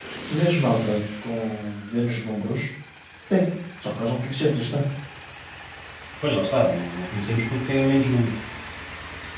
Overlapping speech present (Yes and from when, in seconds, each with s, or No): No